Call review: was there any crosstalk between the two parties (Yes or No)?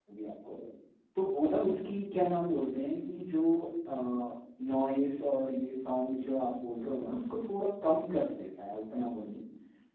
No